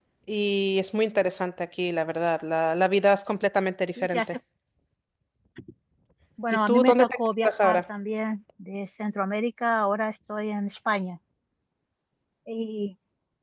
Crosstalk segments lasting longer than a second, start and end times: 6.5-7.8

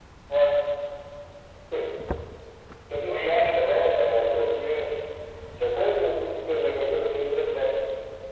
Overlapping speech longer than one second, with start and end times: 3.1-4.4

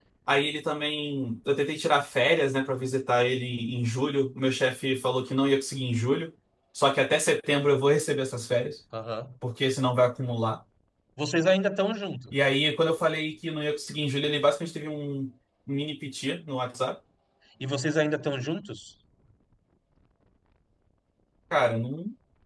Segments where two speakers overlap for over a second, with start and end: none

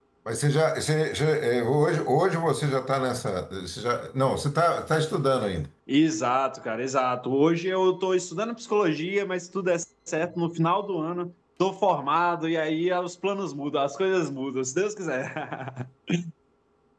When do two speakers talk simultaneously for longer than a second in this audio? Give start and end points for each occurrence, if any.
none

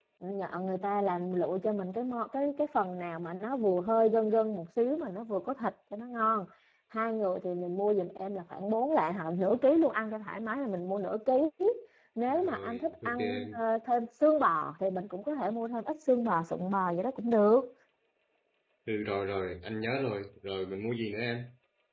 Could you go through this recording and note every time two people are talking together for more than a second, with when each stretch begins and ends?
12.3-13.6

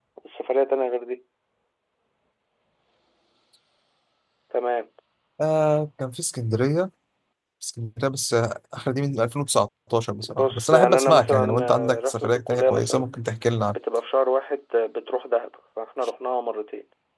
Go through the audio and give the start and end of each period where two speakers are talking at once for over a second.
10.2-13.1

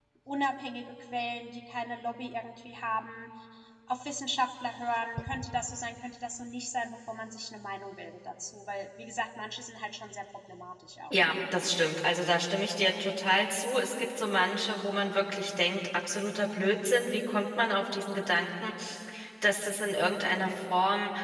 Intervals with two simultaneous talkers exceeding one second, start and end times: none

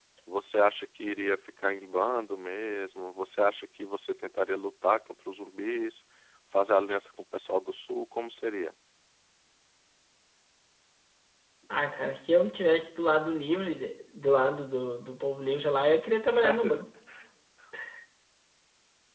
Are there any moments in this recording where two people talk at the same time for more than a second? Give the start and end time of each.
none

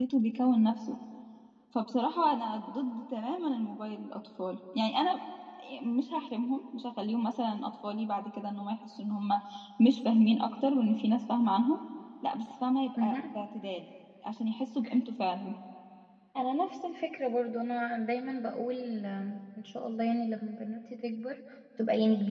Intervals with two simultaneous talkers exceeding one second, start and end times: none

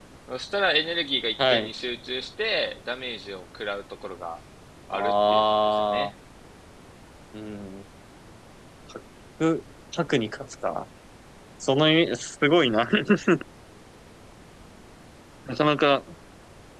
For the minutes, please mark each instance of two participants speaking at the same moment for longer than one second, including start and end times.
4.9-6.1

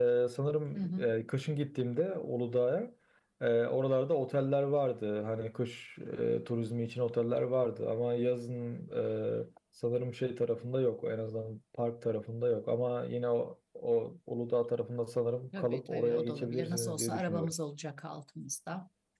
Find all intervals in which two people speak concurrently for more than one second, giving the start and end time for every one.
15.6-17.5

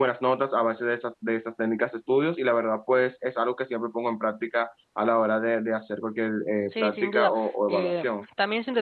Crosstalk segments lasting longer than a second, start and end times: 6.7-8.0

